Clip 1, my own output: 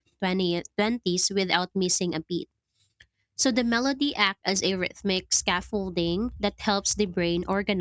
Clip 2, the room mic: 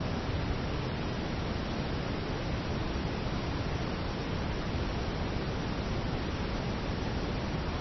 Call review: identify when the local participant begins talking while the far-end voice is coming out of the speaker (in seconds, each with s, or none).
none